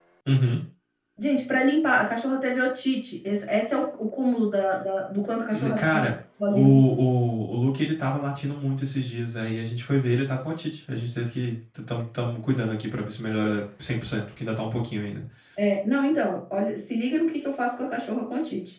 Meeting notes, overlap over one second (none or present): none